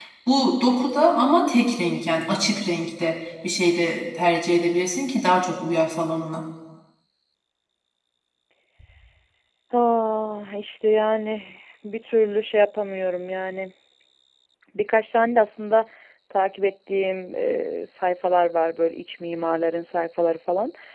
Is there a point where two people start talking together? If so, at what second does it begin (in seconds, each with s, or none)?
none